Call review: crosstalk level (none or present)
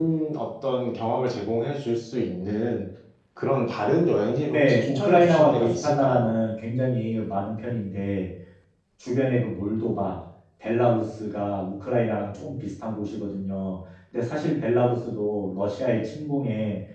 present